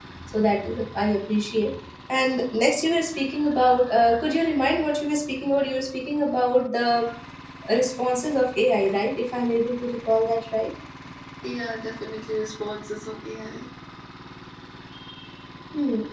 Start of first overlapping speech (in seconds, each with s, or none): none